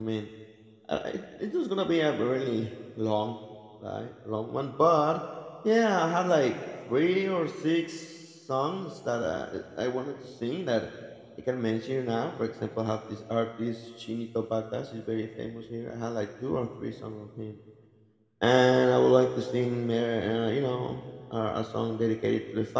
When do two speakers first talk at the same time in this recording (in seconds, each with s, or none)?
none